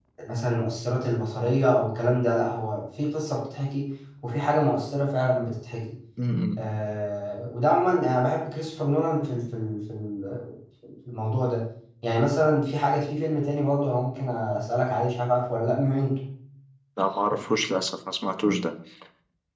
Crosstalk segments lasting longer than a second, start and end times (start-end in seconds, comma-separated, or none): none